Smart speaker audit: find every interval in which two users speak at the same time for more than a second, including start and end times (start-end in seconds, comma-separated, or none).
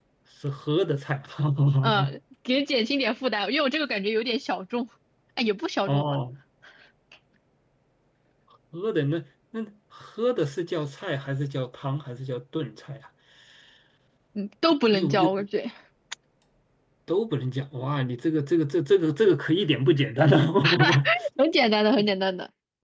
none